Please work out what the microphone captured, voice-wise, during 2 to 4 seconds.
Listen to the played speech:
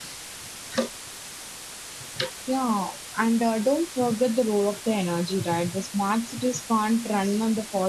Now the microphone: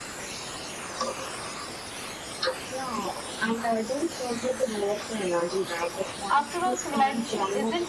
echo only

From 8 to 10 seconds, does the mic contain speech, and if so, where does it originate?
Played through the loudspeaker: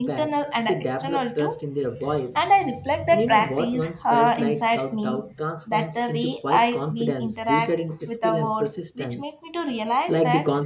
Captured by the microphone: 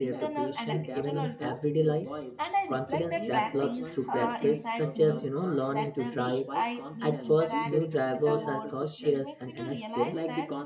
both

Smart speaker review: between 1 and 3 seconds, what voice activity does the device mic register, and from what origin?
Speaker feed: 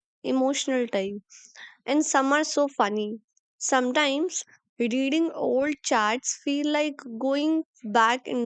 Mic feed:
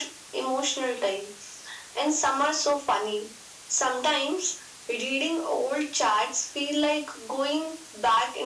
echo only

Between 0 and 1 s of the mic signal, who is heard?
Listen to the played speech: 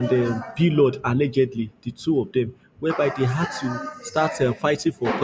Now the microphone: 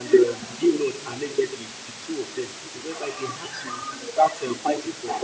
echo only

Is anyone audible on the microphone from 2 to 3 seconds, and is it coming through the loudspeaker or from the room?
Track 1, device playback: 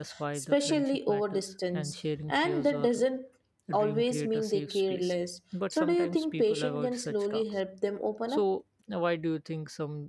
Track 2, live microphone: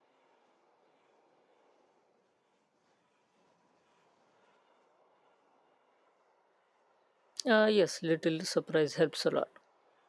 neither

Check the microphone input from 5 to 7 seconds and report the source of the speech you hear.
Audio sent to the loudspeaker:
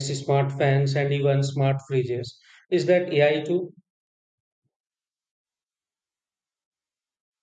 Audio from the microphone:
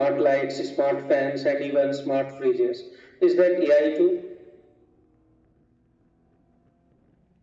neither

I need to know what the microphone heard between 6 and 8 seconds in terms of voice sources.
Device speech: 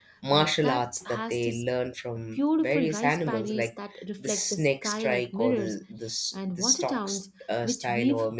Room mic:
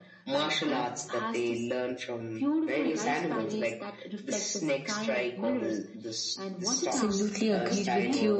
both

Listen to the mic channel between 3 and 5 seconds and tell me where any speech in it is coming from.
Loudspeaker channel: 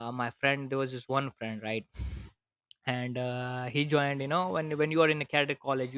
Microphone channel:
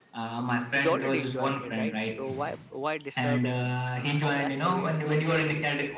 both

